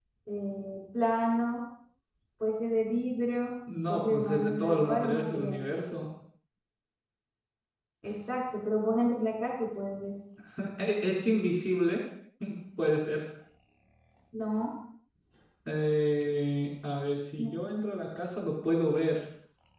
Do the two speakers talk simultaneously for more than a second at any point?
Yes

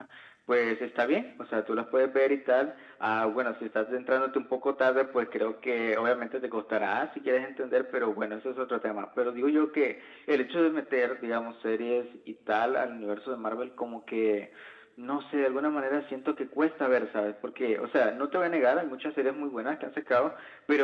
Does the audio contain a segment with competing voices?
No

